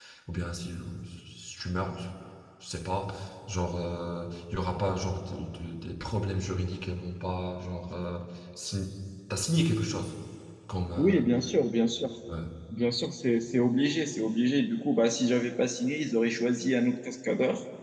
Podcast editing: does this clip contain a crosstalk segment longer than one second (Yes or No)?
No